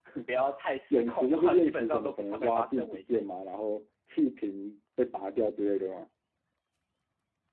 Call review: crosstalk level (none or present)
present